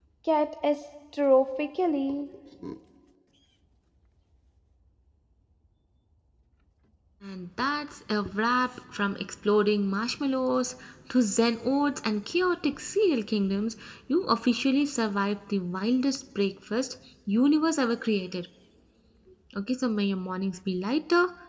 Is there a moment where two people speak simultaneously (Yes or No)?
No